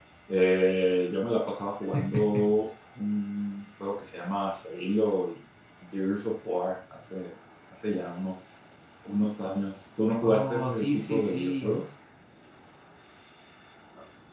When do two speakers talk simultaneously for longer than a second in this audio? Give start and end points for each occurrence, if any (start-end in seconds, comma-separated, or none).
10.2-11.7